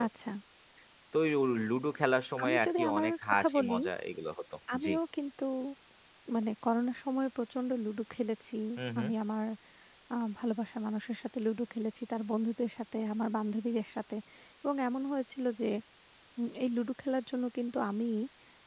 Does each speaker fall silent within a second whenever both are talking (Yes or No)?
No